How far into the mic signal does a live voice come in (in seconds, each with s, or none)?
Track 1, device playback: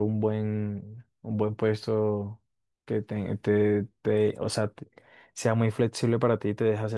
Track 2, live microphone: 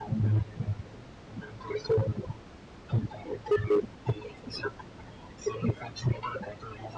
none